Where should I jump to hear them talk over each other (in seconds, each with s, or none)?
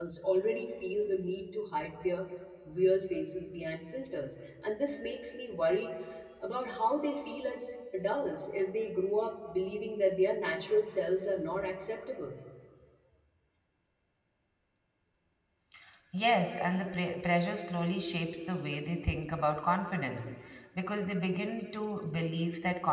none